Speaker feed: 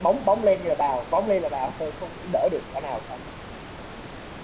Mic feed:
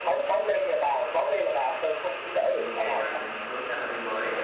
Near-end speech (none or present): present